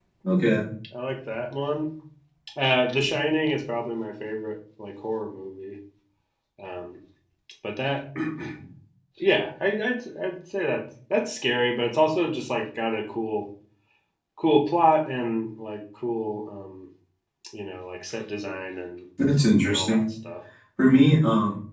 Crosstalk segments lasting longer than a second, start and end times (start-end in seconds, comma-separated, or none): none